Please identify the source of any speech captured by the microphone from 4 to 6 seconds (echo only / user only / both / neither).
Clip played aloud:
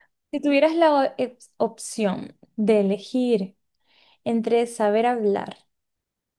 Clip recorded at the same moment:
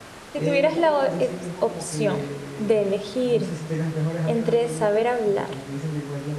both